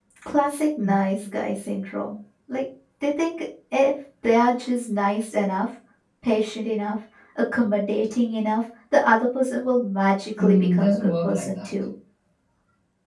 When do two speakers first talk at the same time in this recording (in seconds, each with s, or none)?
10.3 s